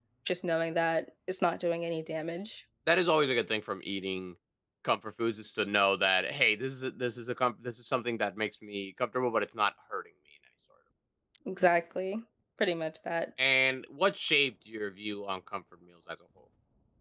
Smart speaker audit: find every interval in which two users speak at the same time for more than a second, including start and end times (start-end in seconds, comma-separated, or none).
none